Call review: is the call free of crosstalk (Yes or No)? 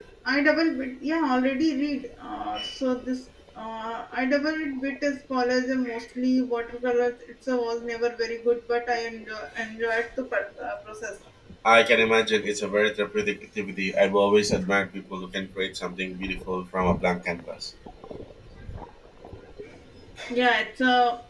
Yes